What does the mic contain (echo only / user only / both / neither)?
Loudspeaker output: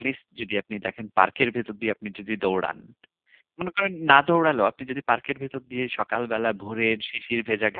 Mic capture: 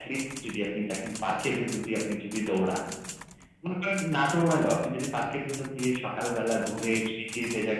echo only